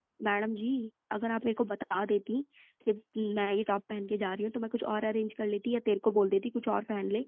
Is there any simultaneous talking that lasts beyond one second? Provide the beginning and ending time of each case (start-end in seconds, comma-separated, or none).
none